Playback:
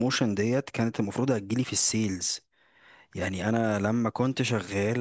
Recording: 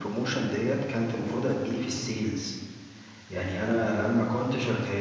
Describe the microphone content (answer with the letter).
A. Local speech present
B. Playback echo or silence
B